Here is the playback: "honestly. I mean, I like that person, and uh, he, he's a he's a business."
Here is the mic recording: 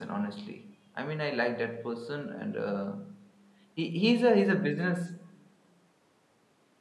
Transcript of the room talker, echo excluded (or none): none